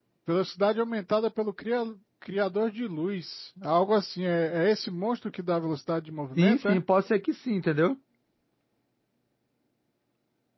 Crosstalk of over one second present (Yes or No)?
No